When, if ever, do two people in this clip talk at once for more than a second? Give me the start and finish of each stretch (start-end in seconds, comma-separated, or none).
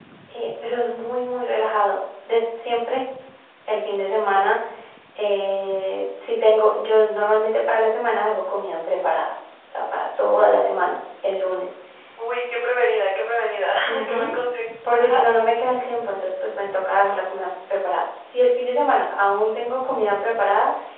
none